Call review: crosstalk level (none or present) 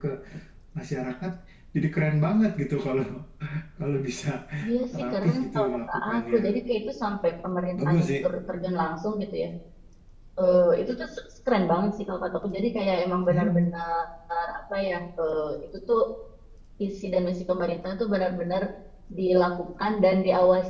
present